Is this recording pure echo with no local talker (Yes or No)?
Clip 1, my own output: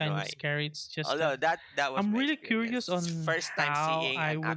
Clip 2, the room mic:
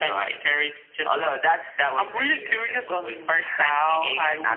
No